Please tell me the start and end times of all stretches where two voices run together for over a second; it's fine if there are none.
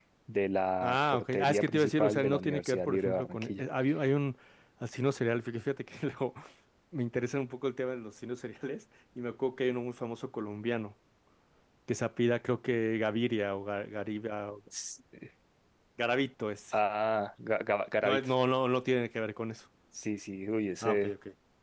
0.8-3.6

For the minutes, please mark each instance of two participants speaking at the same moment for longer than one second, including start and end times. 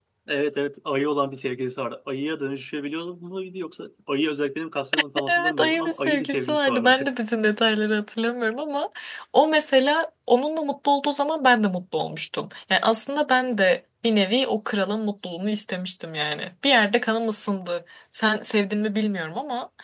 5.3-7.0

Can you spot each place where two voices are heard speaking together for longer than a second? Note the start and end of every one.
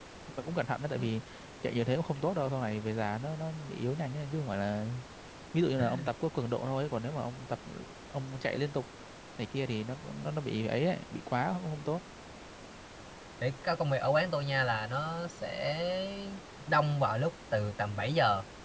none

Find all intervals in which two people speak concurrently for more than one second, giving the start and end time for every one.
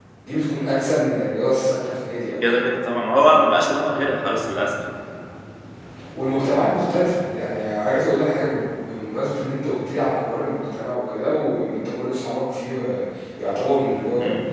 none

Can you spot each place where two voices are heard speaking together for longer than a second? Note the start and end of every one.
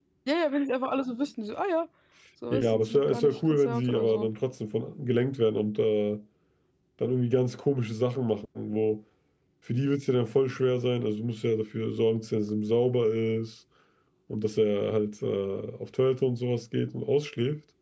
2.5-4.3

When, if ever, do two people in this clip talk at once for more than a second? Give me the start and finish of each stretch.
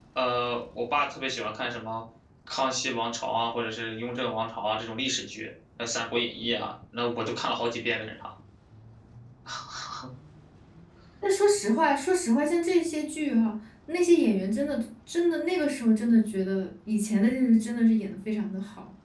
none

